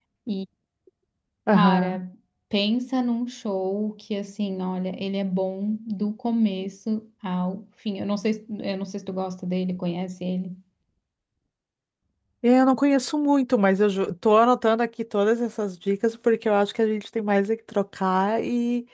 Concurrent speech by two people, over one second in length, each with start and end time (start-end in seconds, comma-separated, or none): none